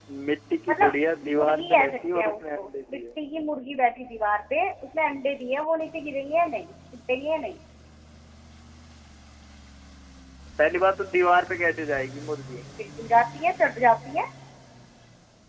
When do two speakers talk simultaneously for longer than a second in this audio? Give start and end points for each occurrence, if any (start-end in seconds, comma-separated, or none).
1.3-3.2